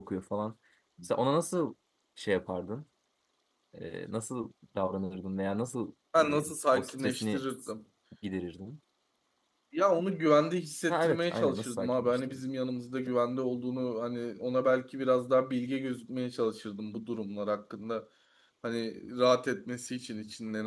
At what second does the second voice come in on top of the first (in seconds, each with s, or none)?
6.2 s